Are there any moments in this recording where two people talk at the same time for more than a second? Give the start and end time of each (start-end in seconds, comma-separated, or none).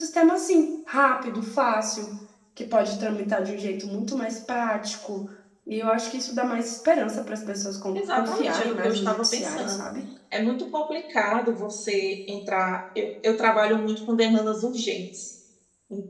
8.0-9.8